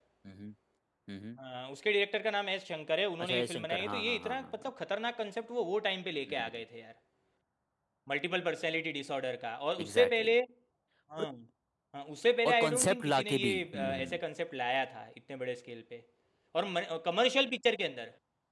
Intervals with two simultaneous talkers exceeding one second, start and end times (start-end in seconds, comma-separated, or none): 3.2-4.7, 12.4-14.2